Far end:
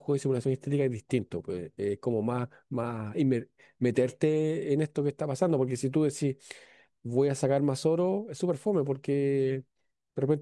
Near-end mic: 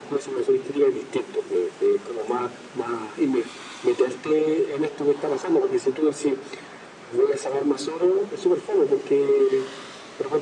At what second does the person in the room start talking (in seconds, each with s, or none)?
none